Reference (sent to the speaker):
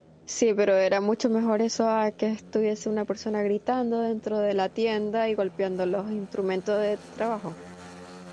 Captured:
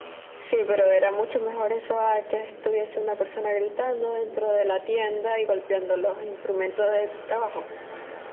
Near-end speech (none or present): none